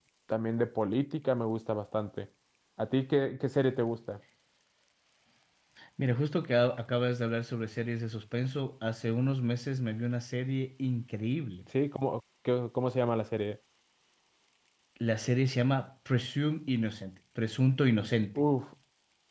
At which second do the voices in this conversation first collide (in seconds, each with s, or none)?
none